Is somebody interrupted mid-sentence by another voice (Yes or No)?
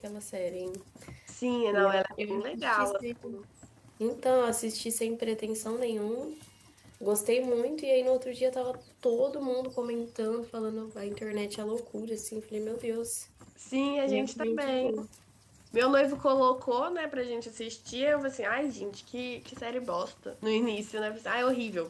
Yes